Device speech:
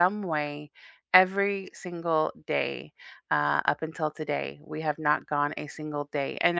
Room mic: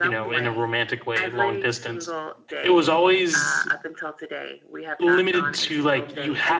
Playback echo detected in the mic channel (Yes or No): Yes